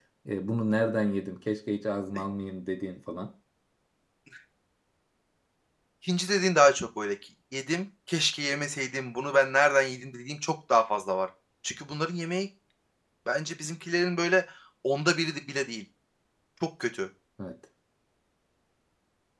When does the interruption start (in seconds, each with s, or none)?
none